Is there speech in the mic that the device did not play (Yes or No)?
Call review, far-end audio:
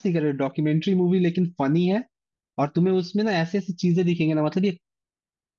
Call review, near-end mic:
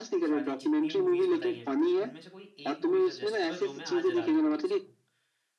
Yes